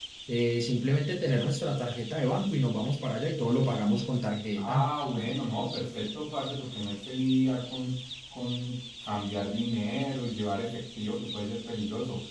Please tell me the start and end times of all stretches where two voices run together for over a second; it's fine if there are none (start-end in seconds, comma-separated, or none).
none